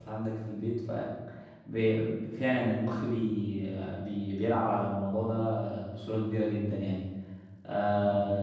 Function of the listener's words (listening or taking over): listening